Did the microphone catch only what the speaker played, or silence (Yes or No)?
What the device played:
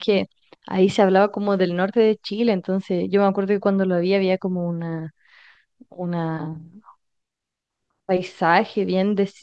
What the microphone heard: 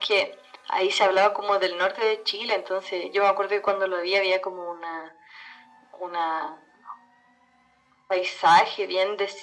Yes